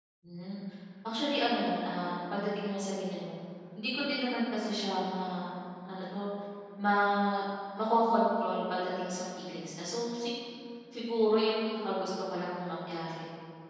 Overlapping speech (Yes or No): No